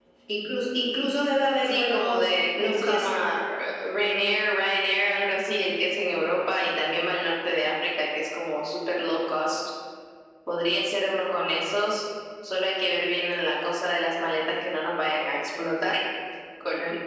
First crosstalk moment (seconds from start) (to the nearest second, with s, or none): 2 s